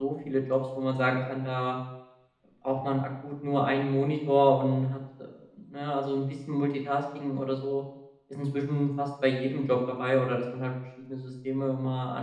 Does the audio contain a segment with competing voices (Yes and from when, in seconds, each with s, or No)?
No